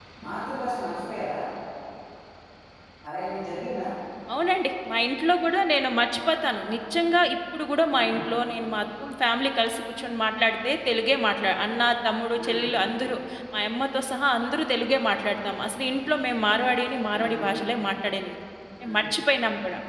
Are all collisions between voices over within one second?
Yes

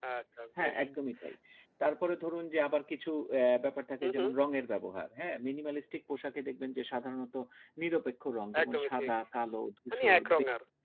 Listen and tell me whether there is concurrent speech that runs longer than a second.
No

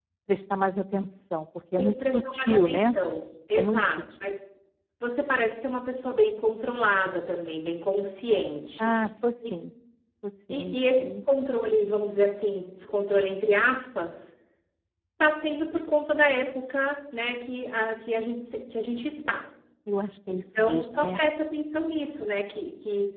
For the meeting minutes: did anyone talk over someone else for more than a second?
Yes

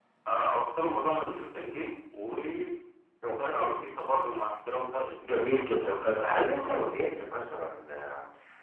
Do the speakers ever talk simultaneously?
Yes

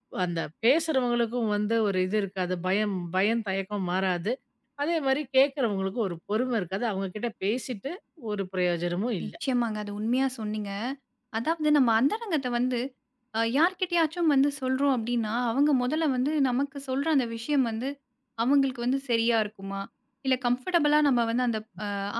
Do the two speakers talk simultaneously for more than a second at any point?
No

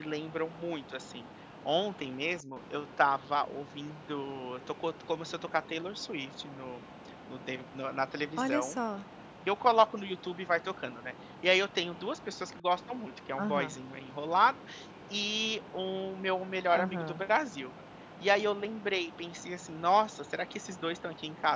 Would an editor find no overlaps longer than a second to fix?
Yes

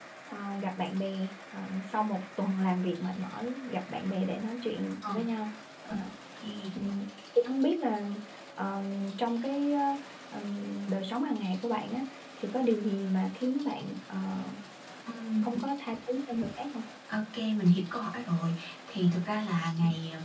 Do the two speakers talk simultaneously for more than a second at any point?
No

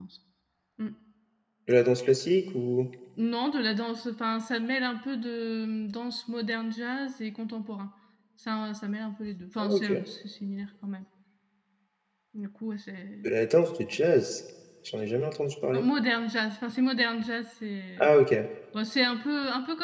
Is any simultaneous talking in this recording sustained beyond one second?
No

